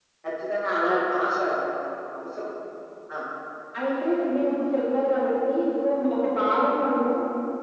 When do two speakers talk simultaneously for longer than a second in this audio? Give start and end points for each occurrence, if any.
none

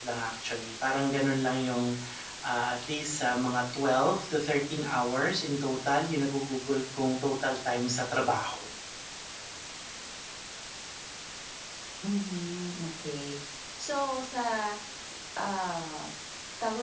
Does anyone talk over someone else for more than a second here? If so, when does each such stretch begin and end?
none

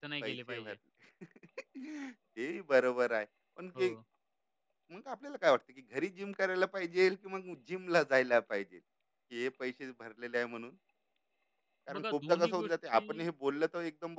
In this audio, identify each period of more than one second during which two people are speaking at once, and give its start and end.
12.0-13.2

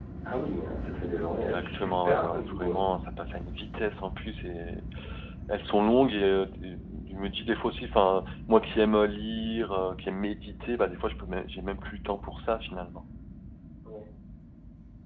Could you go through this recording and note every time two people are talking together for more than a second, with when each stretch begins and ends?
1.3-2.8

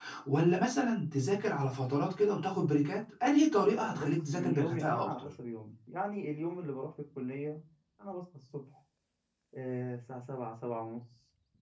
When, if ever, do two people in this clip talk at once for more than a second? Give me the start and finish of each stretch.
3.8-5.3

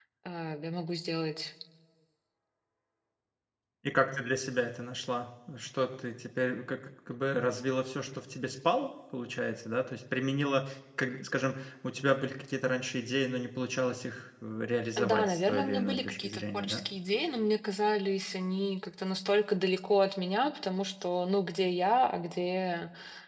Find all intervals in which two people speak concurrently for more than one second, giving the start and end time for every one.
15.0-16.8

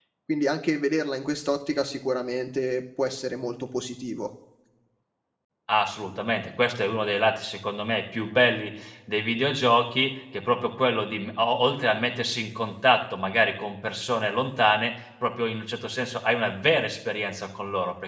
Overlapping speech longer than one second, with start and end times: none

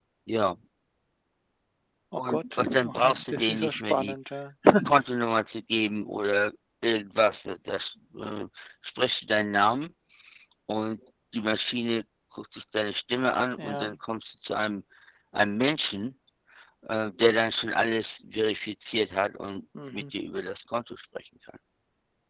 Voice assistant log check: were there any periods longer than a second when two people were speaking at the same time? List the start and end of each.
2.2-4.1

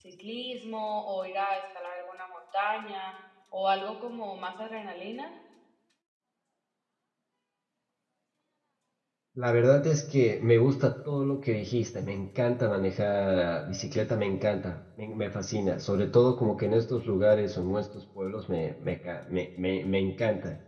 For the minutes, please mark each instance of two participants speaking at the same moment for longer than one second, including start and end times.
none

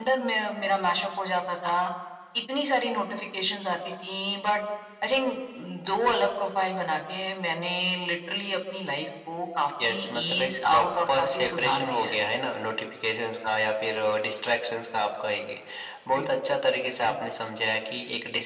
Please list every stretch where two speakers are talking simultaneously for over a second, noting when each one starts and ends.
9.8-12.2

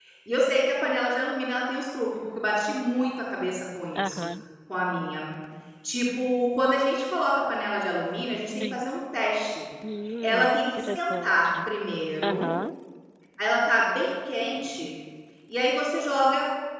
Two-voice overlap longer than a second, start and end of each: 10.2-11.7

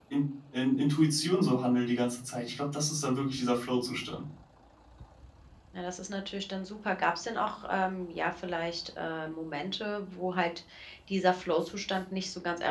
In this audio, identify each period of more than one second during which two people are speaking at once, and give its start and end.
none

